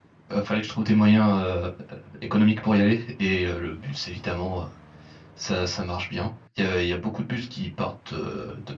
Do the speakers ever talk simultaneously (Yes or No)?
No